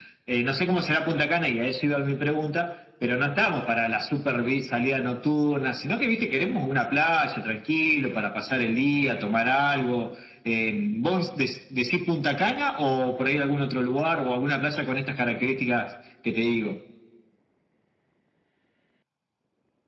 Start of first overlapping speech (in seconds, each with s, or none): none